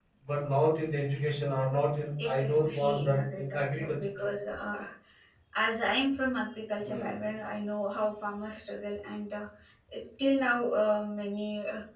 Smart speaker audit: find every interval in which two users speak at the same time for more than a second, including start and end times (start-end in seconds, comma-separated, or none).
2.2-4.3